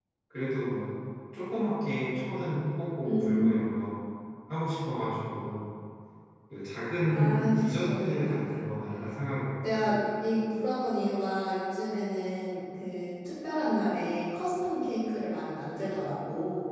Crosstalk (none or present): present